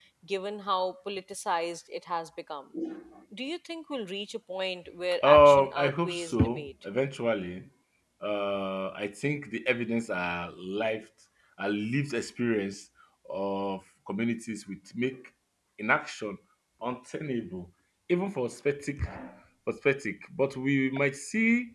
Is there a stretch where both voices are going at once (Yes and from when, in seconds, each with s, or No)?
Yes, from 5.2 s